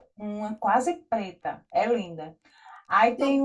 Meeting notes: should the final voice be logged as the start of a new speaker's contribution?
No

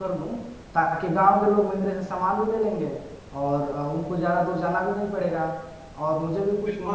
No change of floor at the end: No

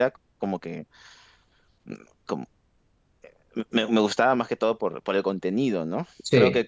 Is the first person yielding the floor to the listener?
No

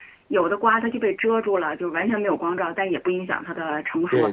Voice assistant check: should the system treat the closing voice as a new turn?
Yes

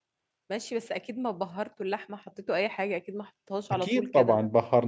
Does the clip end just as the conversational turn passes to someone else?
Yes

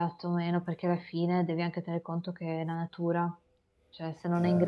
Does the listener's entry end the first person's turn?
No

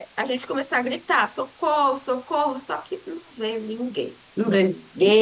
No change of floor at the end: Yes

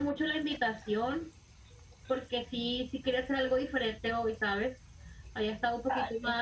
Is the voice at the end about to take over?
No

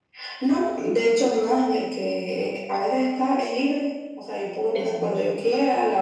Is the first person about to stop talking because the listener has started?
No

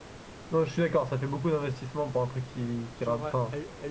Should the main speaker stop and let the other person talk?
Yes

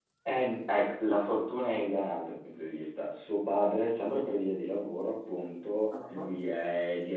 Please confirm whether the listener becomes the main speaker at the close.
No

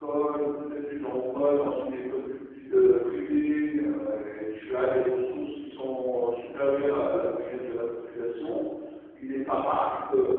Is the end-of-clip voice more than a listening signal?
No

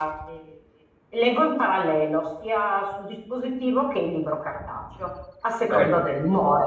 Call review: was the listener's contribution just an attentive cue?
Yes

